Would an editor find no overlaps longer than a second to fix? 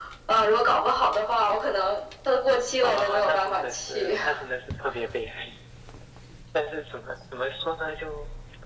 No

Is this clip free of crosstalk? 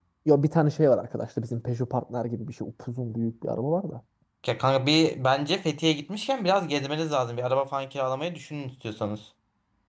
Yes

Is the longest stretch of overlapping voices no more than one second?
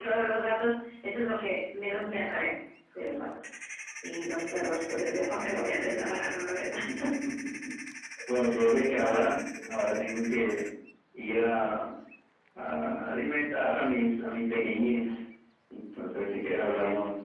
Yes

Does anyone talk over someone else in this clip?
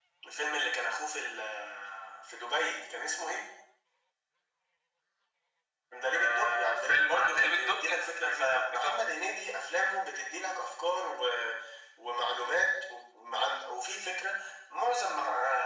Yes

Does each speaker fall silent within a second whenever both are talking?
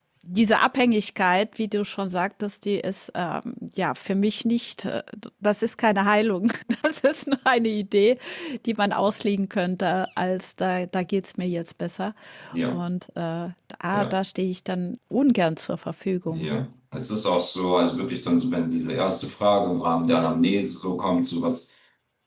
Yes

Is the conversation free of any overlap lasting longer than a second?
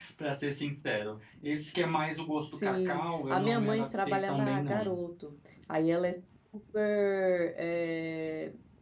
No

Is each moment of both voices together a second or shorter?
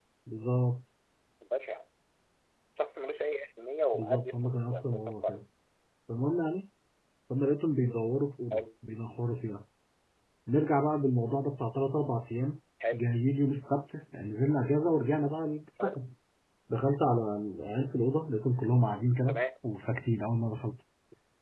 No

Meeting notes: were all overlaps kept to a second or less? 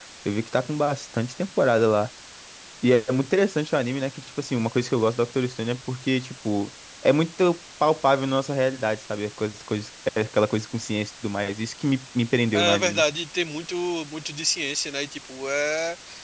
Yes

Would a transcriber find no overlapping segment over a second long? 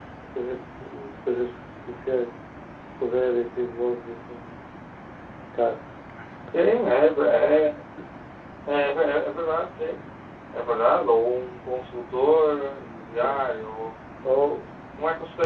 Yes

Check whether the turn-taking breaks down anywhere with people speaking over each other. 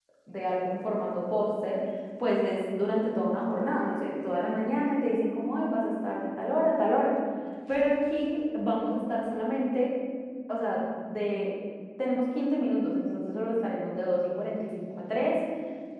No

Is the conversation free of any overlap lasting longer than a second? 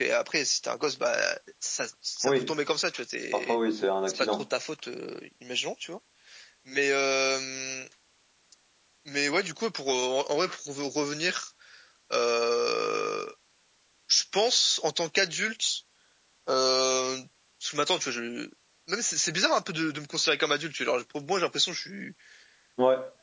Yes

